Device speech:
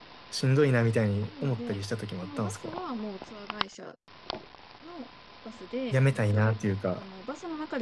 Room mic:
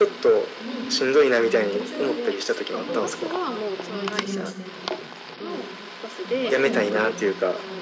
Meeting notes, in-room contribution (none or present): present